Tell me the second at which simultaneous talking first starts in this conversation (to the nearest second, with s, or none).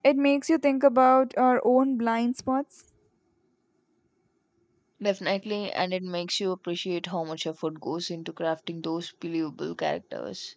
none